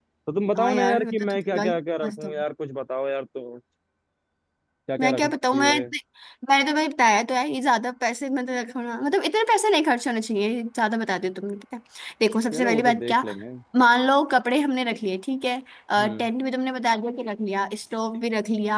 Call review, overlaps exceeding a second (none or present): present